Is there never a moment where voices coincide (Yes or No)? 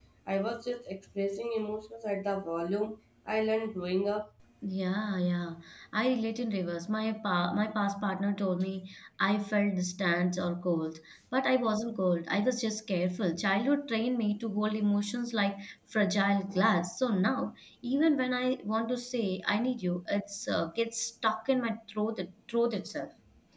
Yes